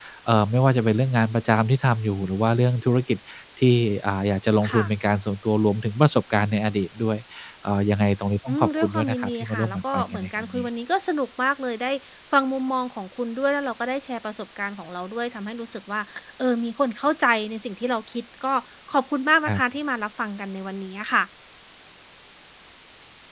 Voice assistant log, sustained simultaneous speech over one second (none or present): present